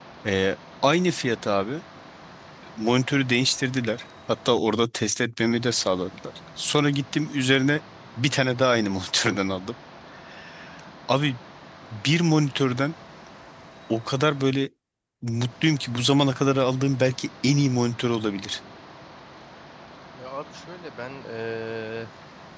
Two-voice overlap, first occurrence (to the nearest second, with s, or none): none